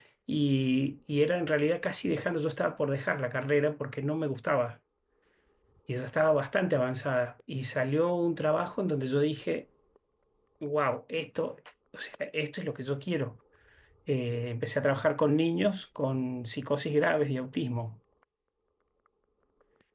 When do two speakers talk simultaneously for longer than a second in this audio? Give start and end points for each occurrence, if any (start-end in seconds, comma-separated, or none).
none